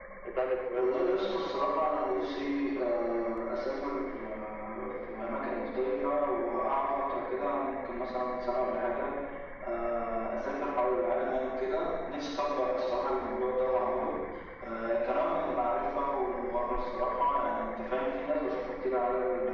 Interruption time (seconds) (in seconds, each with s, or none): 0.8 s